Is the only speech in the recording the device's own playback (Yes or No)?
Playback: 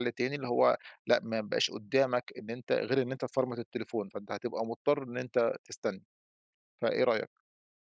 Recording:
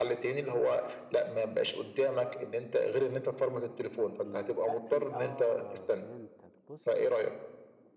No